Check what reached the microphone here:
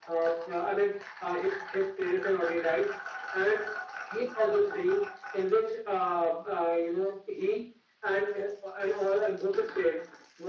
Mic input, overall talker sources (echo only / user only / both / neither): echo only